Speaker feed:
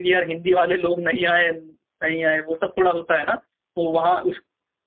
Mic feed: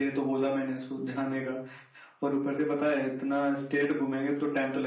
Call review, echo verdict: none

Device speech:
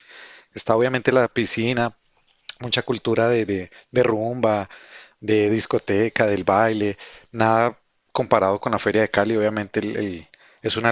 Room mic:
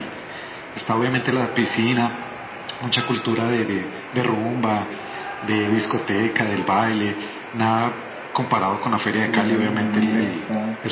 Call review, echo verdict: present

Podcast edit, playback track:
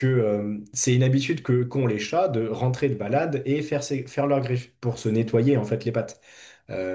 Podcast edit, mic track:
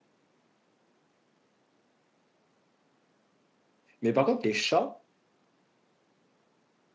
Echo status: none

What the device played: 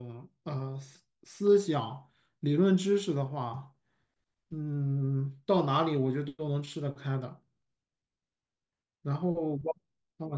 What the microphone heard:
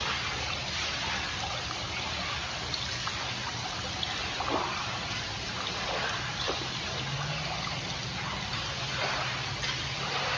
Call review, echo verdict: none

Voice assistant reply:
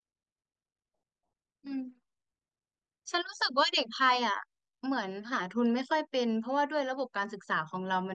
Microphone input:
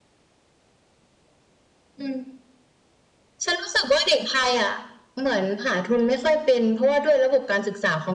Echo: present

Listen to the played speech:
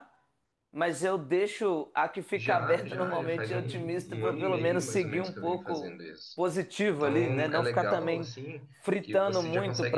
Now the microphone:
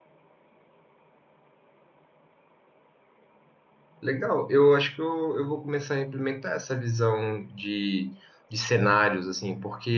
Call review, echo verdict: none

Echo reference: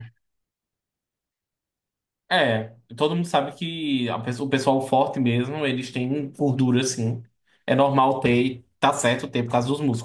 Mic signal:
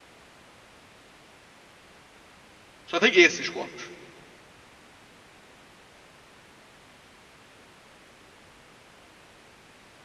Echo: none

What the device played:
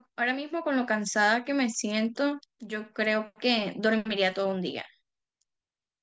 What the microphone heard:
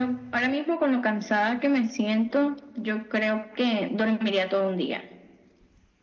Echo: present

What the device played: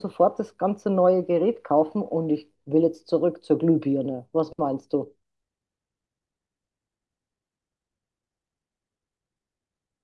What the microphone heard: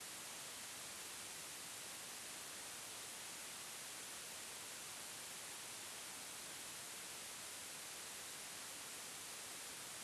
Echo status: none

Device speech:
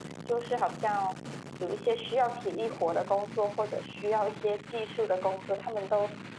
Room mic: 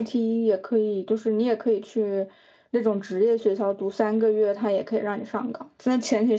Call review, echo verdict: none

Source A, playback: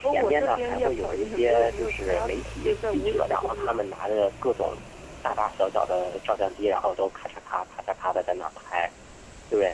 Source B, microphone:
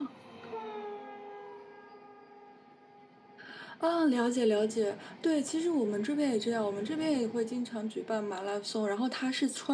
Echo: none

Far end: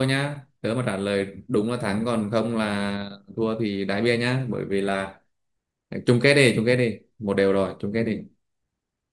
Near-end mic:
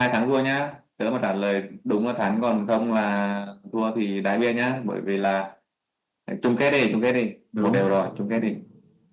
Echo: present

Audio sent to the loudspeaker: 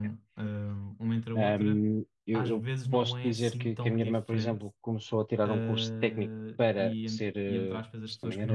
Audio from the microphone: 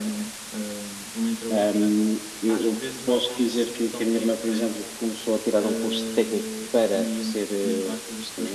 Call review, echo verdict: present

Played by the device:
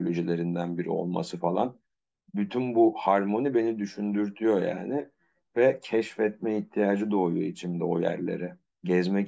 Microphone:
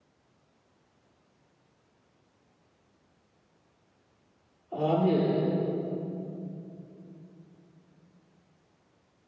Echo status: none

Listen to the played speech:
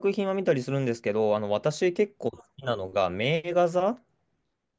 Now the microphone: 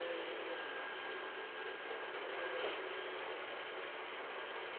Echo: none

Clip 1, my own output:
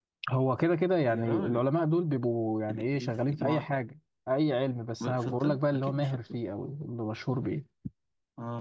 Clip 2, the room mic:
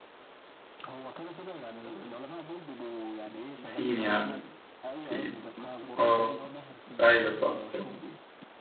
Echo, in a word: present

